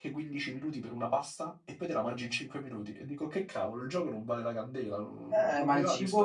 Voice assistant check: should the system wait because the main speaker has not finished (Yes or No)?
No